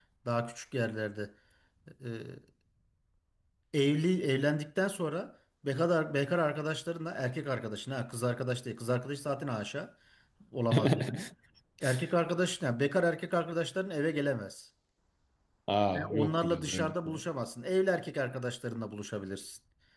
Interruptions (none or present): present